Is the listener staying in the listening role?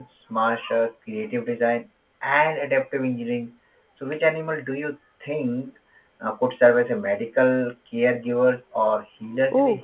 No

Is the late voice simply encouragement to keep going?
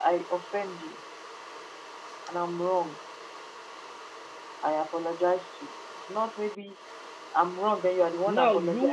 No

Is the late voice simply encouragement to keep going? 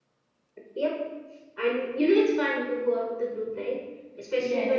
No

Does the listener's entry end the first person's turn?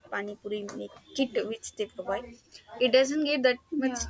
No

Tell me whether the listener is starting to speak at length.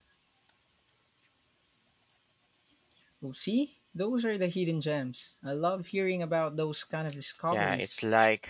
Yes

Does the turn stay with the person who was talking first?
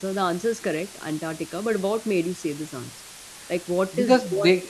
No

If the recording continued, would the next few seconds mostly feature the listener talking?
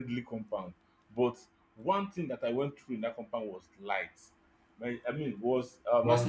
No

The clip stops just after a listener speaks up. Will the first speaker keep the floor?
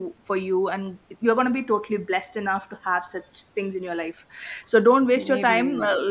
Yes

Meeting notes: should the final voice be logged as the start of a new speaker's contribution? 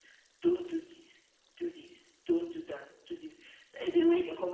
No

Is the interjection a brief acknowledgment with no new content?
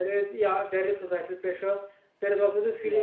Yes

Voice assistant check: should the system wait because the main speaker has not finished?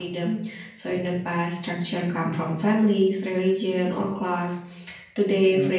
Yes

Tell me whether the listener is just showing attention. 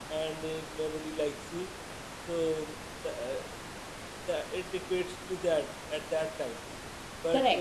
No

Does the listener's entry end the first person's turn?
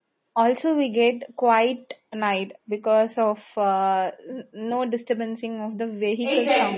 Yes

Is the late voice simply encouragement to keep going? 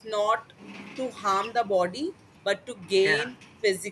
Yes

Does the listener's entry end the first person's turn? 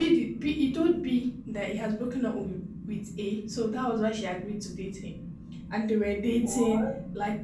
No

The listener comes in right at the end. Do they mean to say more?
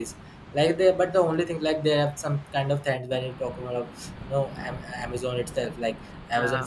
No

